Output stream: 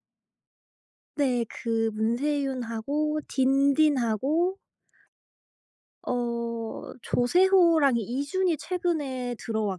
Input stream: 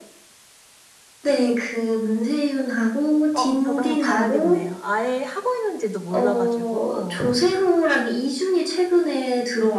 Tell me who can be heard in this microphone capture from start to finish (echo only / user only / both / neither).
both